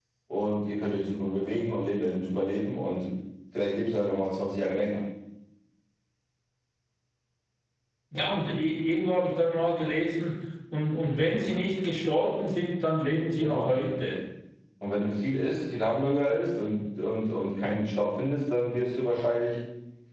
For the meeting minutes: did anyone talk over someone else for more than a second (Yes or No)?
No